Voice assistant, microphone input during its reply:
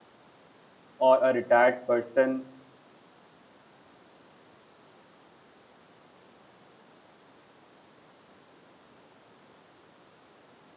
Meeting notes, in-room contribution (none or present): present